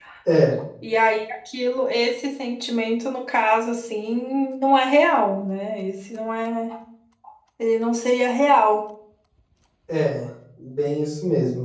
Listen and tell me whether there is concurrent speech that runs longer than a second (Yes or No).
No